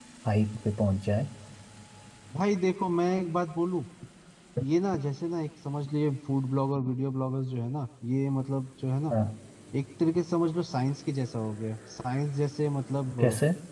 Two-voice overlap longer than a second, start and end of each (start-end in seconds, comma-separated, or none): none